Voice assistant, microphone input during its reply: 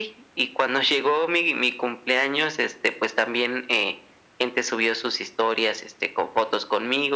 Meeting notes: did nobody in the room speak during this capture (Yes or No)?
Yes